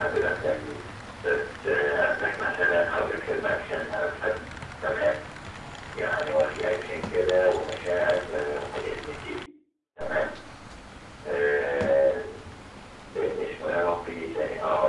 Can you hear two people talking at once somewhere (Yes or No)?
No